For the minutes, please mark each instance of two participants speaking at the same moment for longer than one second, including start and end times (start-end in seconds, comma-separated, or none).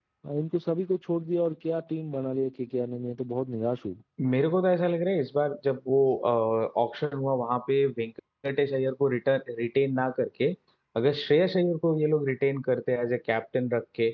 none